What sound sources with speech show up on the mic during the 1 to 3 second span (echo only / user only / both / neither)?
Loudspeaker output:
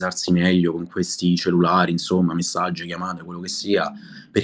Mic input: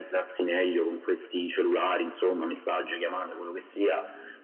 echo only